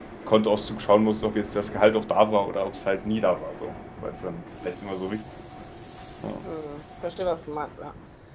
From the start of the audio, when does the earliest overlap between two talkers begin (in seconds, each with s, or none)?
none